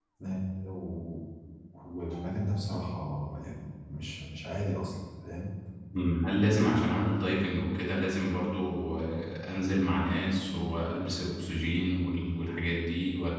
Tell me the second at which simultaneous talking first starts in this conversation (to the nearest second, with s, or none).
none